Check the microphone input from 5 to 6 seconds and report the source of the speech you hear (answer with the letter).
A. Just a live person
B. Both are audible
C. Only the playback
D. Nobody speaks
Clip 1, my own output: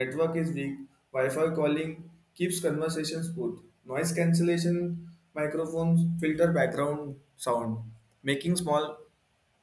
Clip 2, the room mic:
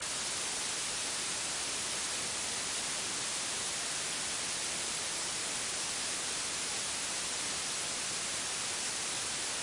D